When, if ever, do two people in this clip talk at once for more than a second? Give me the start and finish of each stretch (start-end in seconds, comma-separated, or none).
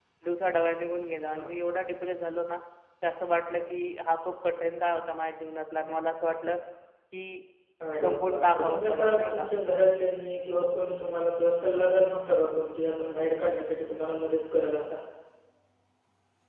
8.0-9.5